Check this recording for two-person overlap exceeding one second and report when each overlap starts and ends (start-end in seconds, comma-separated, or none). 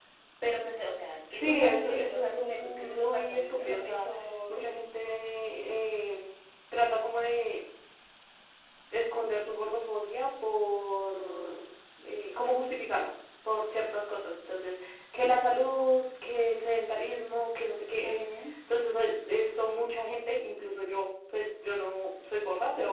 1.3-4.1